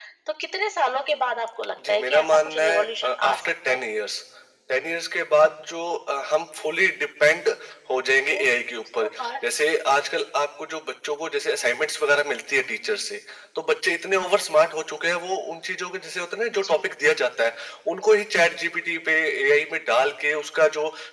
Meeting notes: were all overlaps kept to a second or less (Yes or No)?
No